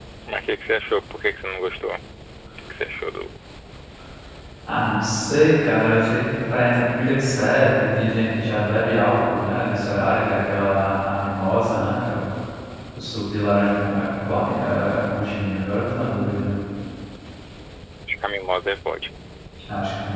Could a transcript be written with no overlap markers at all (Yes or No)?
Yes